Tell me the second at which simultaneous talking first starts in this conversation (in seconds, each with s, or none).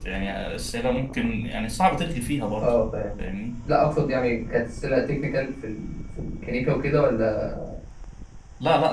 none